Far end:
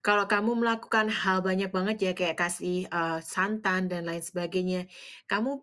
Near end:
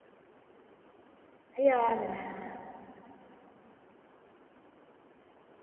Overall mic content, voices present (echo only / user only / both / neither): user only